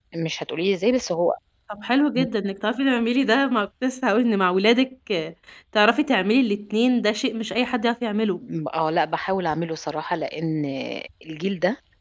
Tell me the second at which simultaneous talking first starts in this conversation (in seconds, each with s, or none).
none